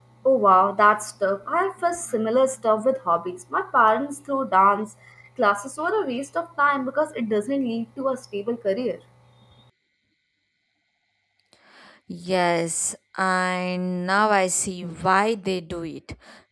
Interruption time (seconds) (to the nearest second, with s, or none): none